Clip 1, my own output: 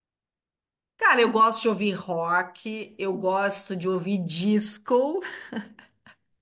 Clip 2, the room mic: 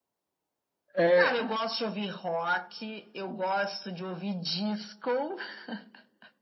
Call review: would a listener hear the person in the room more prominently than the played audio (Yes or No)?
Yes